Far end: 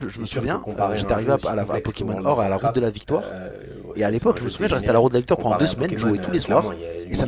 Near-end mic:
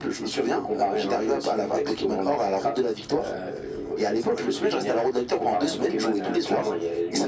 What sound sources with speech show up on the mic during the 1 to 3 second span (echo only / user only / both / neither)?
echo only